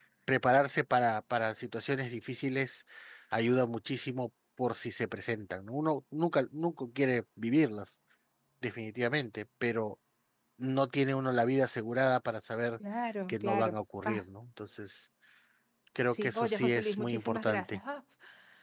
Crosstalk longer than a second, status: present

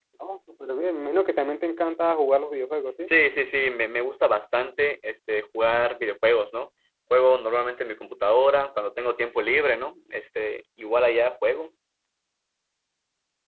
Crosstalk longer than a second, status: none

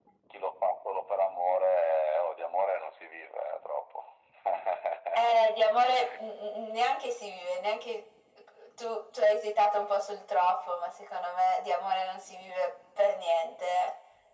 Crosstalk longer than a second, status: none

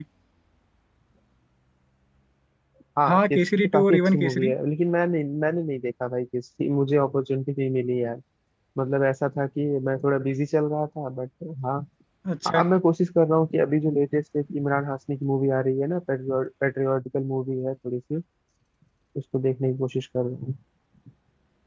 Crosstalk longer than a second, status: present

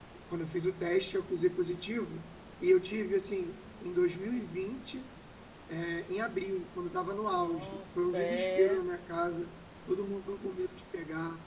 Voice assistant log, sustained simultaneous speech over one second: present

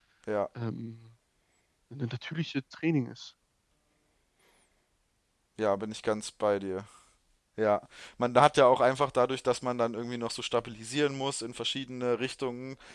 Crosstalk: none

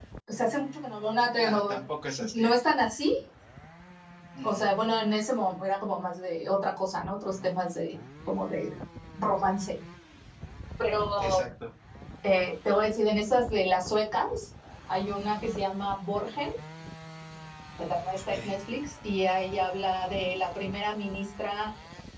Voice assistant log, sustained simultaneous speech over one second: none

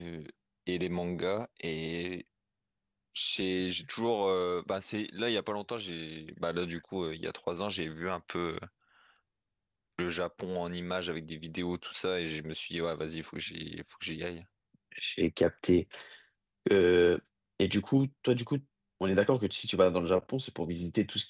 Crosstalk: none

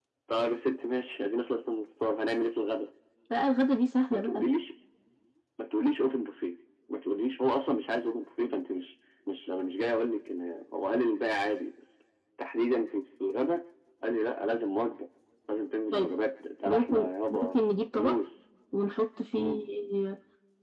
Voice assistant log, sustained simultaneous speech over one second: present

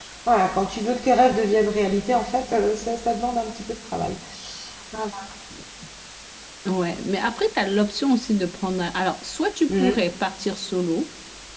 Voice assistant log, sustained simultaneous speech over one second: none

